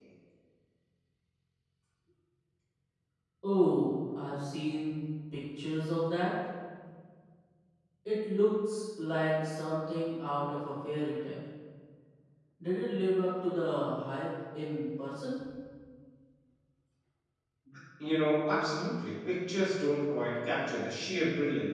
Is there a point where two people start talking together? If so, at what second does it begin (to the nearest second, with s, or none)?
none